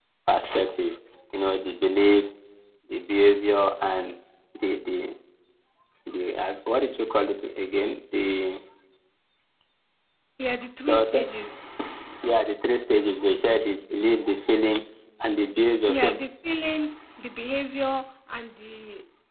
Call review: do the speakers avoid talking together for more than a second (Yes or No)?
Yes